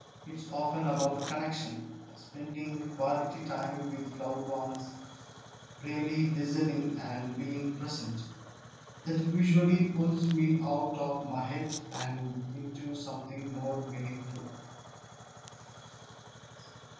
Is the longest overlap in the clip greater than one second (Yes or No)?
No